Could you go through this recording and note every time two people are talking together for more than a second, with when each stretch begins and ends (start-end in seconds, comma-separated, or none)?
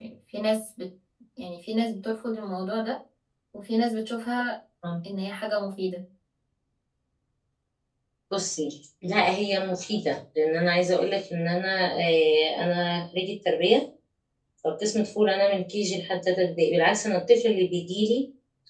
none